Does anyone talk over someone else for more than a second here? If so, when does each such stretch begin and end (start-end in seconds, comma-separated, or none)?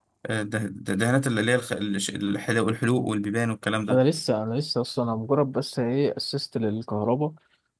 none